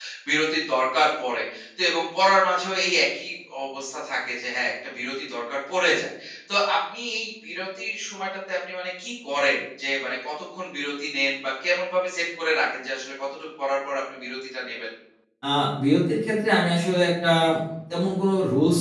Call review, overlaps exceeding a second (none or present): none